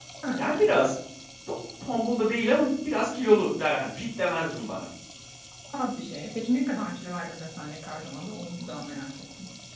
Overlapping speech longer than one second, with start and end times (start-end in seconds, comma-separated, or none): none